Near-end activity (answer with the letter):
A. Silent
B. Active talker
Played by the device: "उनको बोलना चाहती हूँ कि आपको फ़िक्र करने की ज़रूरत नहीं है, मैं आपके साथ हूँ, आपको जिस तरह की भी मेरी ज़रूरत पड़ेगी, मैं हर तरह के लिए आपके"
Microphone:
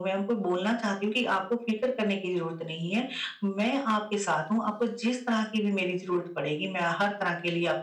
A